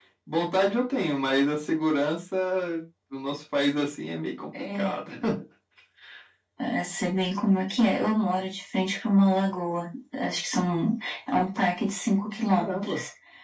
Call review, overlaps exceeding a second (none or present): none